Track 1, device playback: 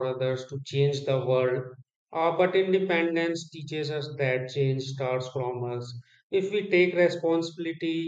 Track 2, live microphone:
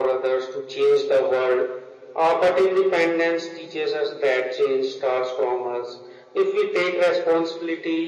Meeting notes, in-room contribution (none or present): none